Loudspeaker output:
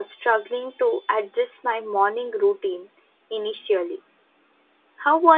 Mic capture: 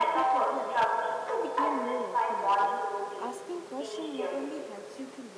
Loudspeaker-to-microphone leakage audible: Yes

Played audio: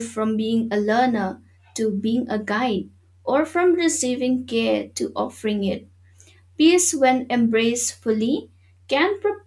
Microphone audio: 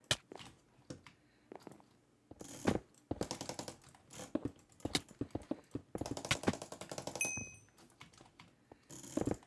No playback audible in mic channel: Yes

